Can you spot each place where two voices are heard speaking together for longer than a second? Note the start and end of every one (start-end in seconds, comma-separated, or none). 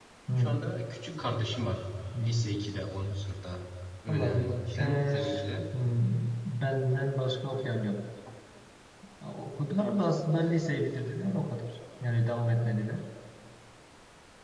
4.1-5.4